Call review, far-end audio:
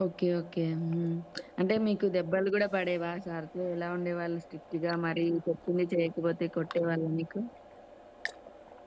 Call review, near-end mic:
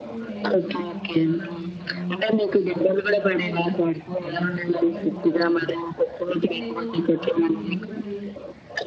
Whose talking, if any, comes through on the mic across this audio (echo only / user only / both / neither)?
both